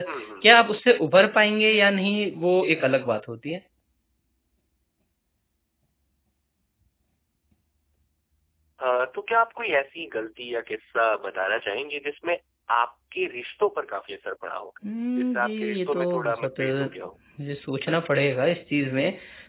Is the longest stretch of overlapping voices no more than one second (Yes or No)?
No